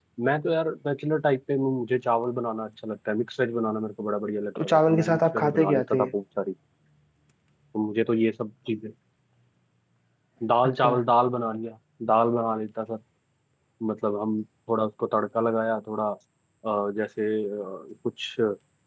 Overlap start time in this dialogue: 4.6 s

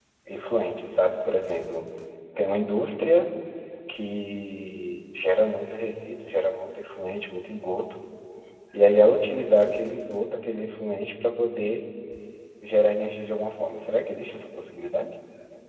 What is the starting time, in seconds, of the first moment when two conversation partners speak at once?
none

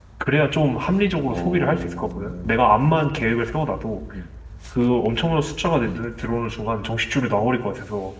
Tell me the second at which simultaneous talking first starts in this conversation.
1.3 s

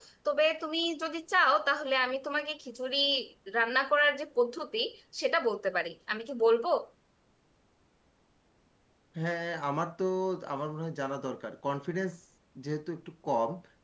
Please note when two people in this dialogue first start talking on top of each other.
none

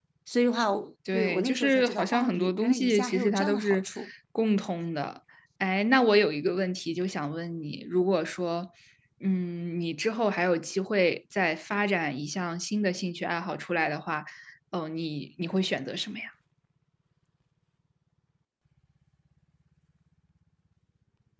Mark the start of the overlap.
1.1 s

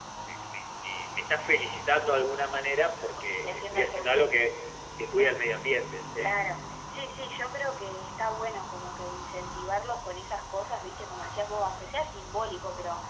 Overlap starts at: 3.2 s

